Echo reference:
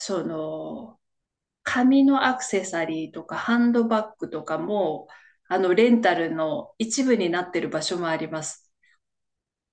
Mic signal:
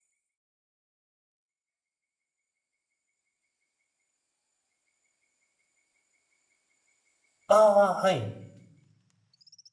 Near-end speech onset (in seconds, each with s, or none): 7.5 s